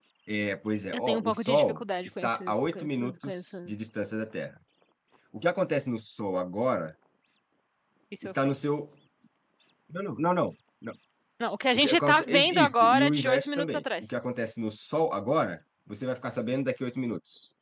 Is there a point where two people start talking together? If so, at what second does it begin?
0.9 s

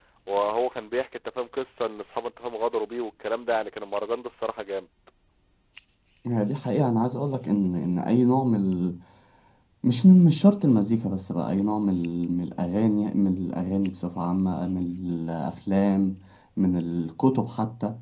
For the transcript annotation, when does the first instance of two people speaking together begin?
none

